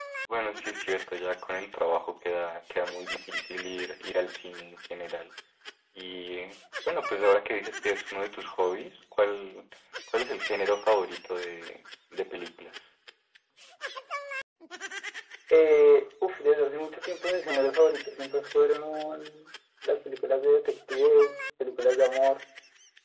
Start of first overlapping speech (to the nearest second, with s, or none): none